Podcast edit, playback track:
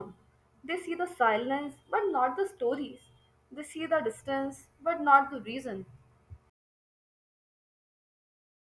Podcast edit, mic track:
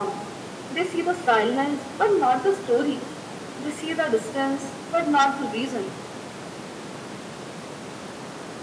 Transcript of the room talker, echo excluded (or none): none